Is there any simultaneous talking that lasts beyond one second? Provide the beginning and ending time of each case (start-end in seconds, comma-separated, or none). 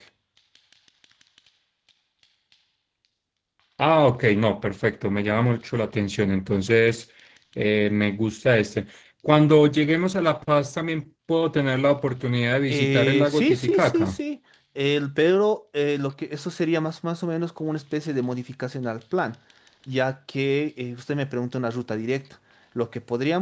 12.7-14.2